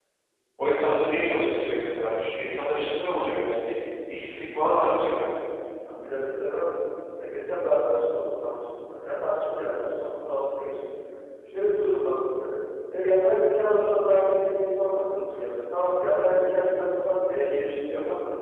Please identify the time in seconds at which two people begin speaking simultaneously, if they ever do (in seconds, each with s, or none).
none